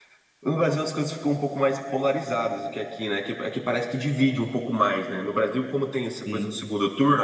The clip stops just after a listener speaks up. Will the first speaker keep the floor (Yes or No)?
Yes